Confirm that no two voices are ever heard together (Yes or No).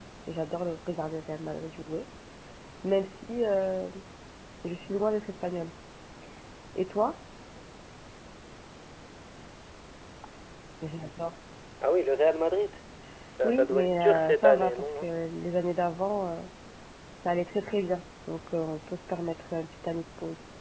No